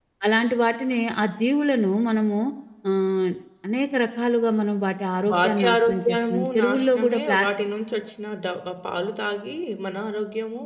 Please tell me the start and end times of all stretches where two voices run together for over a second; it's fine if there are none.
5.3-7.4

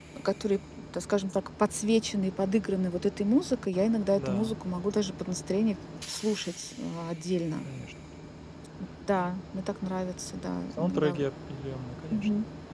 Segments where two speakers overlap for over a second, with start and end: none

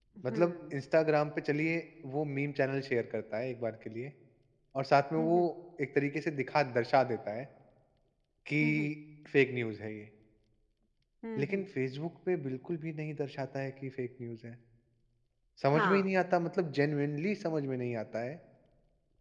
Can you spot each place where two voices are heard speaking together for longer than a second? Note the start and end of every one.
none

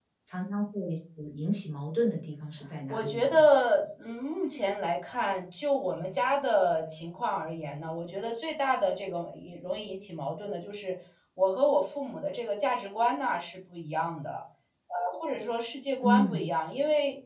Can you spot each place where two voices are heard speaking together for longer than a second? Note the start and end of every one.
none

